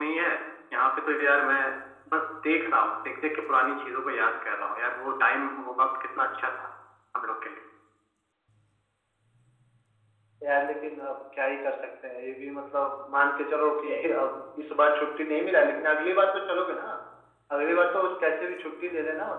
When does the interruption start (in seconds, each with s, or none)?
none